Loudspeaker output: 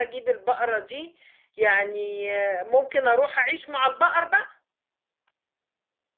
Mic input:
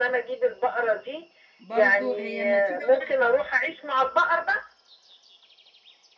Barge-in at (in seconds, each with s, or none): 1.6 s